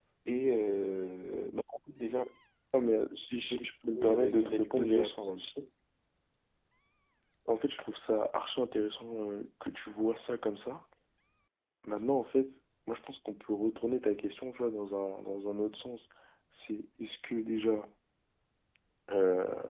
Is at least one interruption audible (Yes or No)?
Yes